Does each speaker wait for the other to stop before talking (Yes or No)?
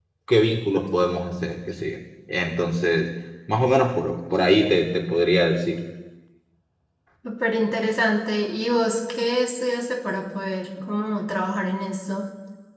Yes